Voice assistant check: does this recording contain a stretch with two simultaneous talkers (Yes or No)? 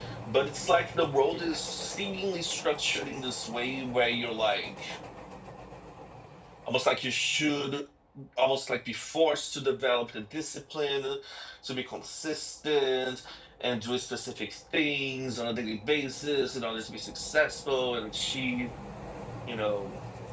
No